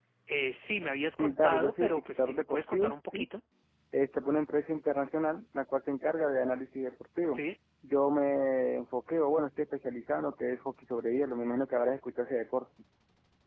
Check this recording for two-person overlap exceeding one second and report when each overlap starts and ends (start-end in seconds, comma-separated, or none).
1.2-3.2